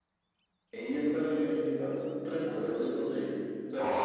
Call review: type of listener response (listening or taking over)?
taking over